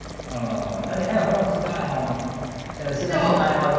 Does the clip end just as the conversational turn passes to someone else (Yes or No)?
No